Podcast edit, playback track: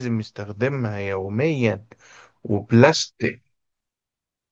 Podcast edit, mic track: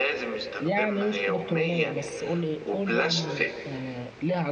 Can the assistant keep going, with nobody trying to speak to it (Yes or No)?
No